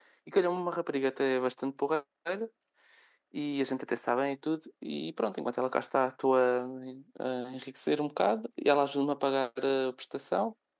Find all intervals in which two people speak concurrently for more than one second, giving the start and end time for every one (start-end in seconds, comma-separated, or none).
none